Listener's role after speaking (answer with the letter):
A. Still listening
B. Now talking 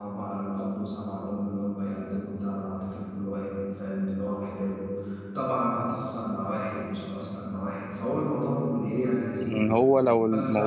B